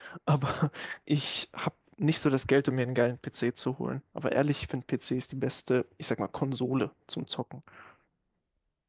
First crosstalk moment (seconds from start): none

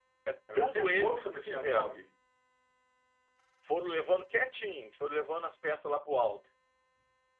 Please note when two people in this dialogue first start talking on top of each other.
0.6 s

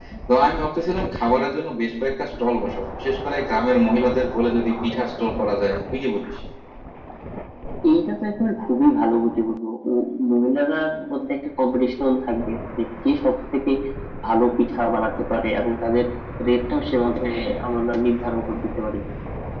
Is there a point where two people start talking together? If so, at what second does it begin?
none

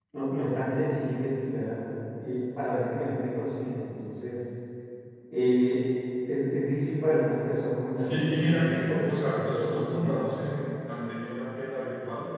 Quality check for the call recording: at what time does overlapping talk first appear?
8.0 s

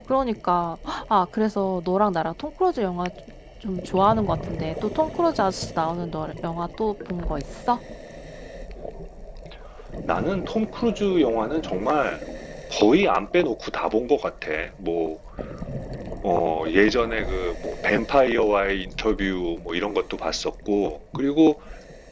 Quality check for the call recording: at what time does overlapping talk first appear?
none

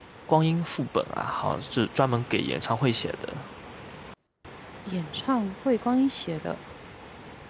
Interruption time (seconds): none

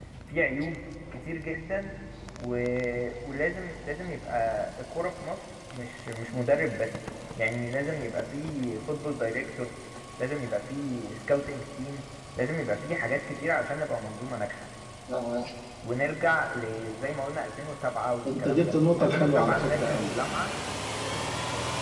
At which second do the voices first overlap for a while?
18.2 s

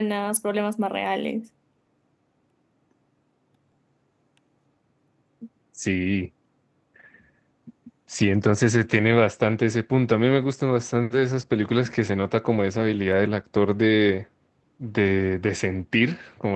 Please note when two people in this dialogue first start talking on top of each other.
none

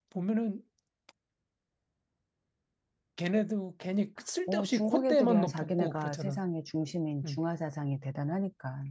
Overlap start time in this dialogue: 4.5 s

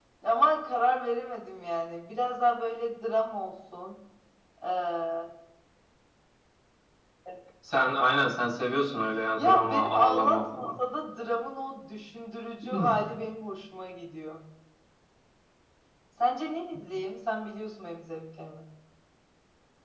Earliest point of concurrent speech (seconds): 9.4 s

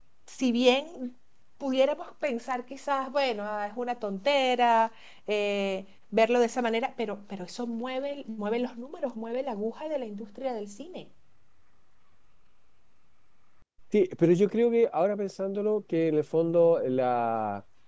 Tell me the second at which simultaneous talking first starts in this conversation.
none

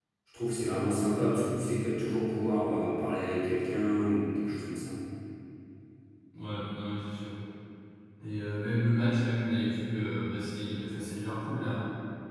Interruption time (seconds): none

